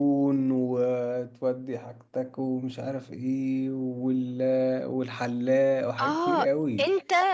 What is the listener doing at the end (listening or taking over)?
taking over